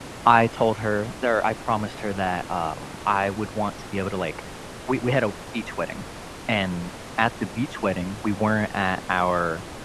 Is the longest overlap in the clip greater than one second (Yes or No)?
No